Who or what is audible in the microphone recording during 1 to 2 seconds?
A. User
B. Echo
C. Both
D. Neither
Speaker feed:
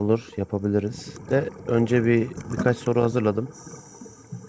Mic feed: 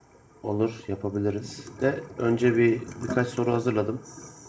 B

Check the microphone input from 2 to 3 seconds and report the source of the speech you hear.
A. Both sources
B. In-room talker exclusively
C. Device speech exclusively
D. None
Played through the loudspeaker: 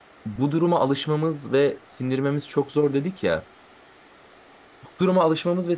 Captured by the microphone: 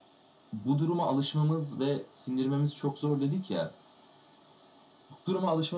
C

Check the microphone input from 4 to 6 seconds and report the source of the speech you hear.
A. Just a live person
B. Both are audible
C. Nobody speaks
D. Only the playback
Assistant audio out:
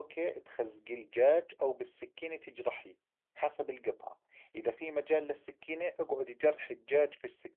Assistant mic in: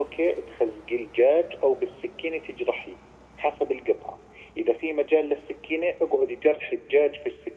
D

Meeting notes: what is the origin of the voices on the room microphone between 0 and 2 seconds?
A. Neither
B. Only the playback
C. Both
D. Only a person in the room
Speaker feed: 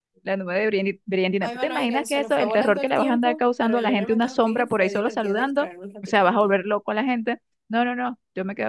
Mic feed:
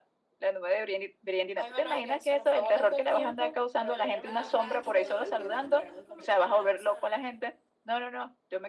B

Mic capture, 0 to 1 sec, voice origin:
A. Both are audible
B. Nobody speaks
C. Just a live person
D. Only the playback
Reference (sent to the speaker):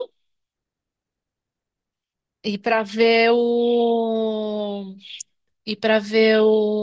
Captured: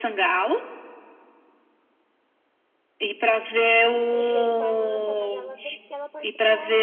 D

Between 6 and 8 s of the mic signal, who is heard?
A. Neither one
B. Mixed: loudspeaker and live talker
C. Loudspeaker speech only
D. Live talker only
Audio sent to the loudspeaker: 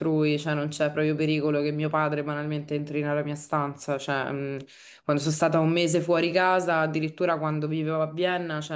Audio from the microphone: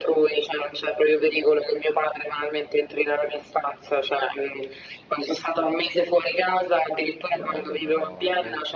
B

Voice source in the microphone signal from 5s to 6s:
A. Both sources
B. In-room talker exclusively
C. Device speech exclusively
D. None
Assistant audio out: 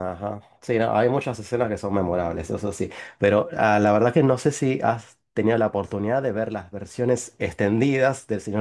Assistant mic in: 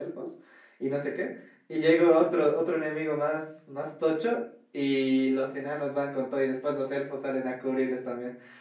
B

